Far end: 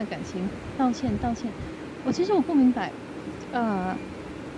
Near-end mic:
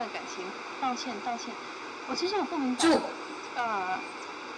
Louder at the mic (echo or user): user